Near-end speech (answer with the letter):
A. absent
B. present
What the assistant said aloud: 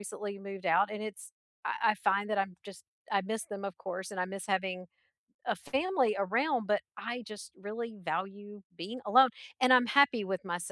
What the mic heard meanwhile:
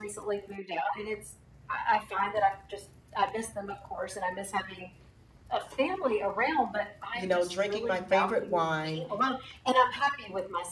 B